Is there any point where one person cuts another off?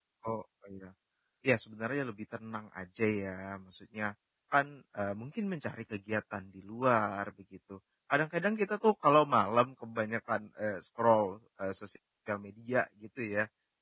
No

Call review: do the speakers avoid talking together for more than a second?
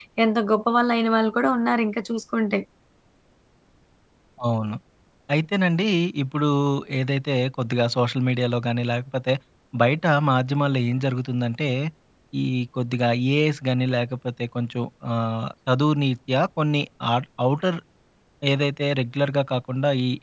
Yes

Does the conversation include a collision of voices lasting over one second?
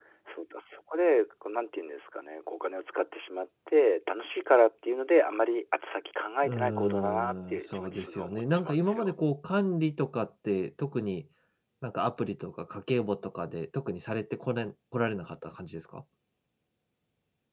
Yes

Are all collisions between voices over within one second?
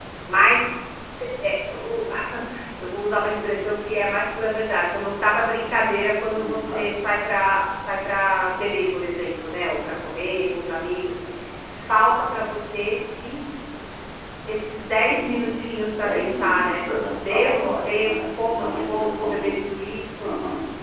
No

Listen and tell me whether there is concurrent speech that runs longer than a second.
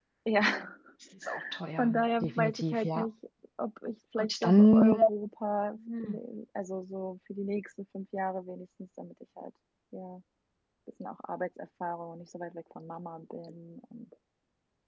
Yes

